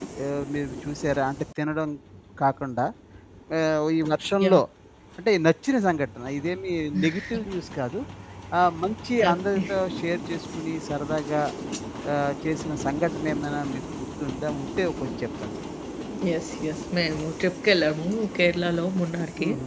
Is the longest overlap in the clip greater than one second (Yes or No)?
No